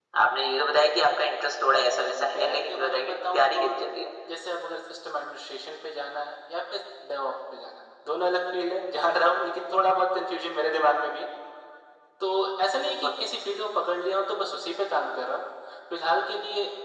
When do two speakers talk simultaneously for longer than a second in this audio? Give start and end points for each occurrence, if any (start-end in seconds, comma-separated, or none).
2.0-3.7